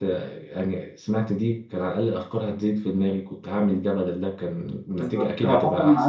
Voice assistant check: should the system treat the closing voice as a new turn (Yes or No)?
Yes